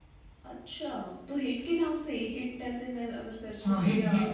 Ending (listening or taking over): taking over